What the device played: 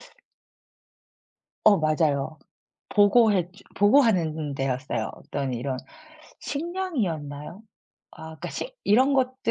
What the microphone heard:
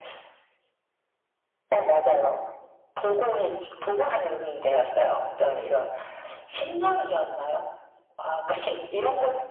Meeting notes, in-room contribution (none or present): none